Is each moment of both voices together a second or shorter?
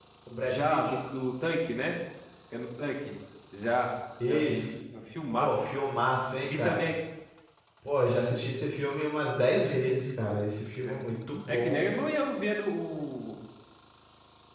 Yes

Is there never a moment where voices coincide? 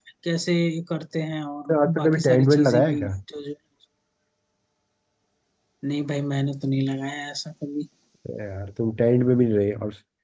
No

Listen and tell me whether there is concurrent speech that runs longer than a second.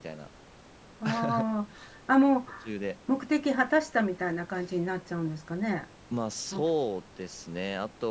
No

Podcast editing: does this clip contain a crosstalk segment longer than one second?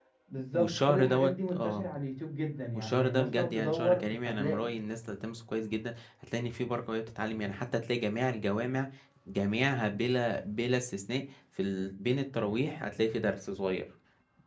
Yes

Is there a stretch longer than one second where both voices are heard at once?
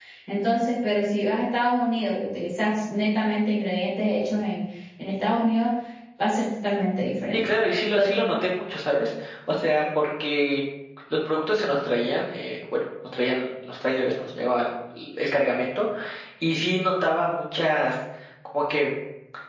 No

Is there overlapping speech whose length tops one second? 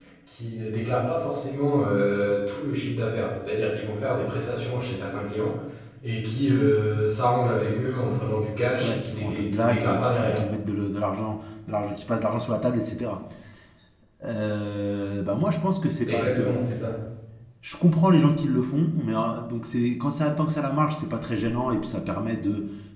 Yes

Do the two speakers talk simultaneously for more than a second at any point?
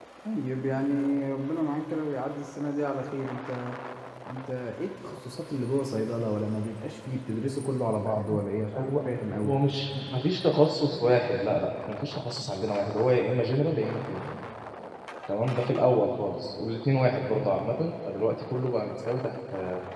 No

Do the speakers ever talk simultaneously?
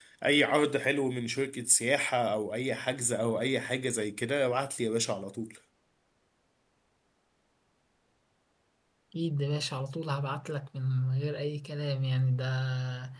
No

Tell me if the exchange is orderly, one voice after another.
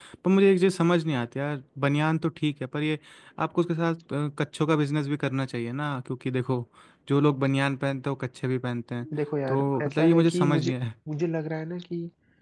No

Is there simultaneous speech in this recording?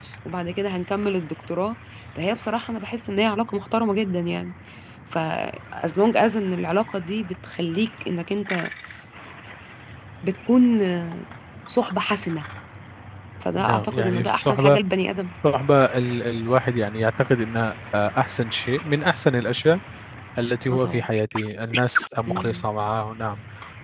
Yes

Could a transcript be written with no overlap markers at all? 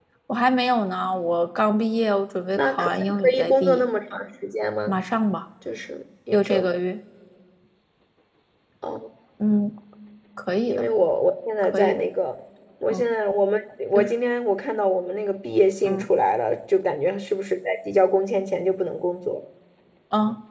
No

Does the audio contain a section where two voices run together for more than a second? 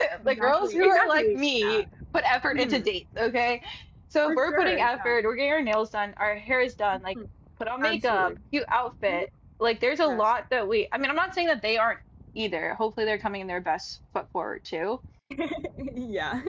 Yes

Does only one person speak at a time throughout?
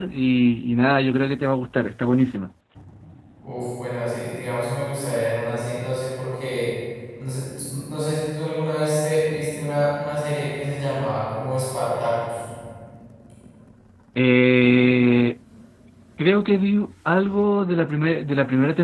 Yes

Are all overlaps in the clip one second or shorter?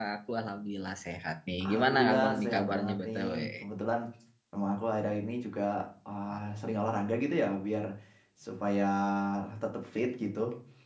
No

